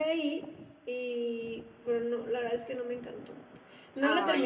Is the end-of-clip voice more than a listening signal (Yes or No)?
No